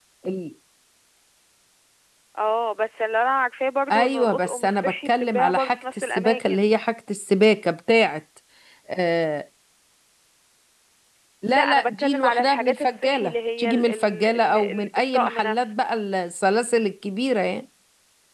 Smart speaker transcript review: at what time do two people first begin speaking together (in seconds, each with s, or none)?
3.9 s